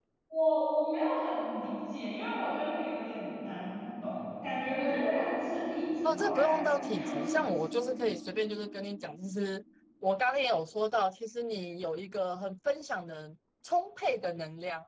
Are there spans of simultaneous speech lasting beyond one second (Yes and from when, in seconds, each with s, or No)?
Yes, from 6.0 s